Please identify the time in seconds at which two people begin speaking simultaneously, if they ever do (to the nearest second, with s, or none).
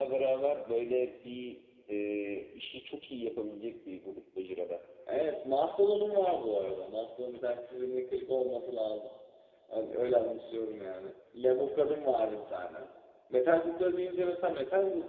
none